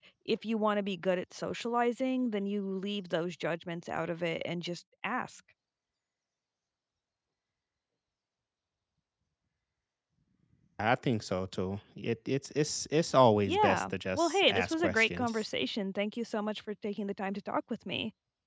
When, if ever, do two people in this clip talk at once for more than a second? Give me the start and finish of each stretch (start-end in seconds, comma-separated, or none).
13.4-15.5